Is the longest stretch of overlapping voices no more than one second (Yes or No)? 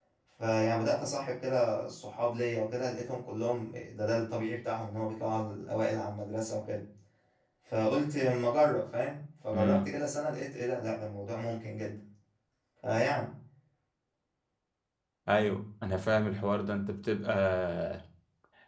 Yes